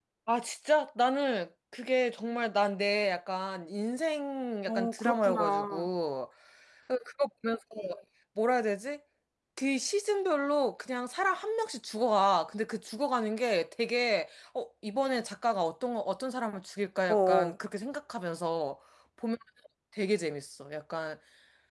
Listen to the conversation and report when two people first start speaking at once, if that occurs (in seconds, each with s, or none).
4.7 s